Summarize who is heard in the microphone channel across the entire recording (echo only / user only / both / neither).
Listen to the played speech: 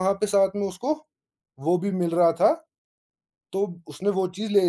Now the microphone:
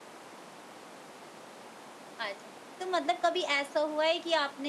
user only